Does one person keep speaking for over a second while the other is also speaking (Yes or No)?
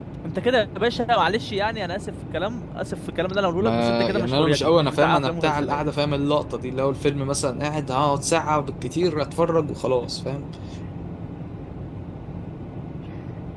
Yes